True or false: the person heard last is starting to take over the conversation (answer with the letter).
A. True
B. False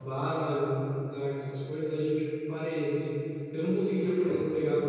B